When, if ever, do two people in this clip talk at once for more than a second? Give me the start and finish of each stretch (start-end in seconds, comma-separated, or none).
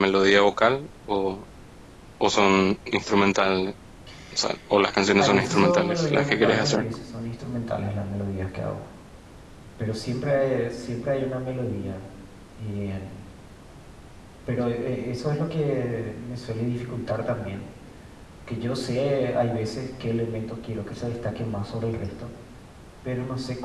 5.2-6.8